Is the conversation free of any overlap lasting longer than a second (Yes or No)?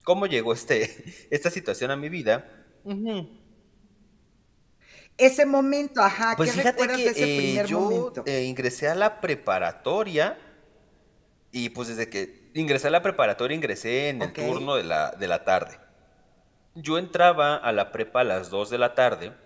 No